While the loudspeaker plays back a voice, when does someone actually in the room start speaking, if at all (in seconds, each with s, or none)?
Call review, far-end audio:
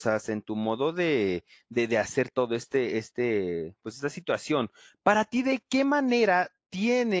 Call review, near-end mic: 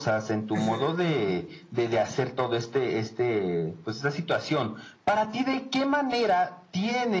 0.5 s